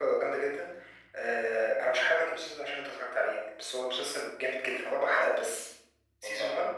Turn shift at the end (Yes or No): No